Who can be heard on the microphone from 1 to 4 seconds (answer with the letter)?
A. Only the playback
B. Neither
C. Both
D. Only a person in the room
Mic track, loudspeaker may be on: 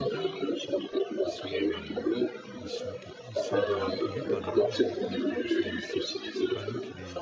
C